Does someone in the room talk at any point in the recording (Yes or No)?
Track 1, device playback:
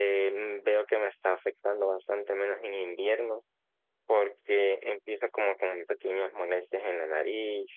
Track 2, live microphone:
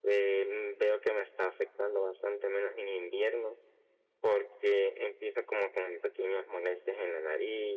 No